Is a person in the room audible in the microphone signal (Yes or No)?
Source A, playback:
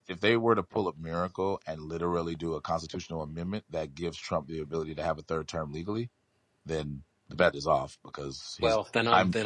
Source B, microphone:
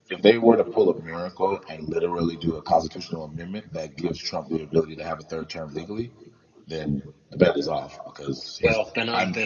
No